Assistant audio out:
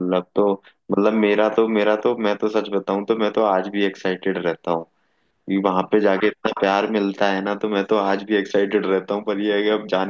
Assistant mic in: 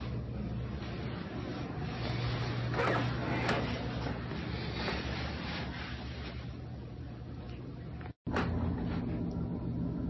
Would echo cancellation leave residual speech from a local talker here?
No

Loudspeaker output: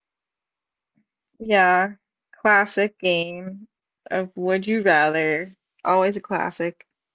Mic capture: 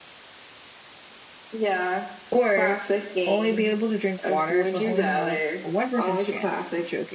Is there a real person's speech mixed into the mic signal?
Yes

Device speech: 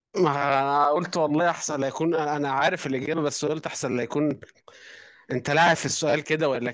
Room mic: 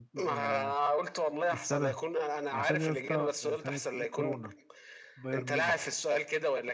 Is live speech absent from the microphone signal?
No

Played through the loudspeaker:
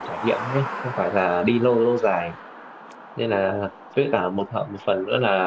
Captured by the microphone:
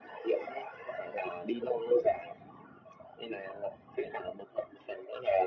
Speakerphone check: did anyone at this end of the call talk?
No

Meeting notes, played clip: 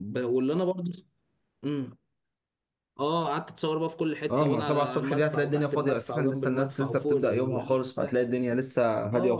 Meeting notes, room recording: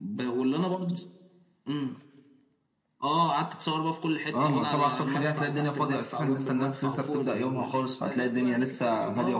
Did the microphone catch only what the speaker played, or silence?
No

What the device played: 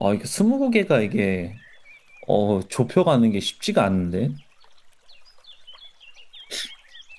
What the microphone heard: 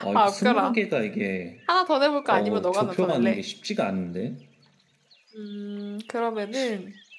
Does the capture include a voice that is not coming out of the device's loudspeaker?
Yes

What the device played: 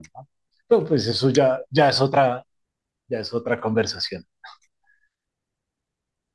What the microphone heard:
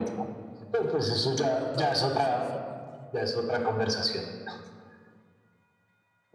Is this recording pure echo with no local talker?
No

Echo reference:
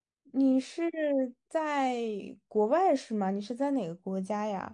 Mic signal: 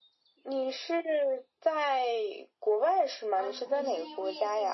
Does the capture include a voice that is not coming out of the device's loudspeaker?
Yes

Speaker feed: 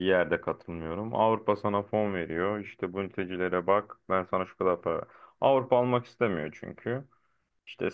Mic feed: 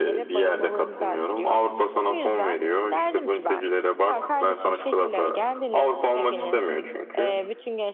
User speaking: Yes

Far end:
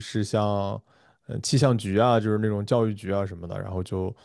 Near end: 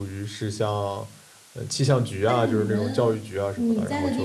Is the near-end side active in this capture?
Yes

